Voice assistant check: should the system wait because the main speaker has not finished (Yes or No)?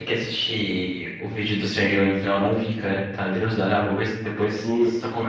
No